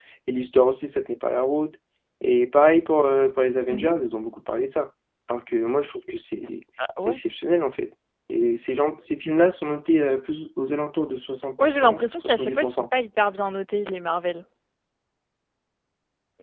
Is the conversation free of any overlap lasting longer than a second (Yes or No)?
No